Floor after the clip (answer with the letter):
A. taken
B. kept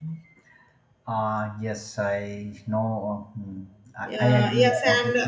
A